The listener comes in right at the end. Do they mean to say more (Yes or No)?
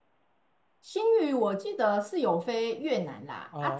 No